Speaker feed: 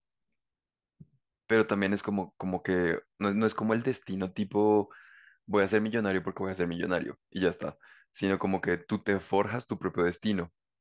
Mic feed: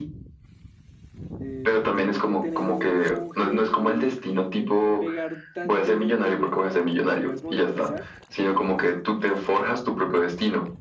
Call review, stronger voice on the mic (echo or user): echo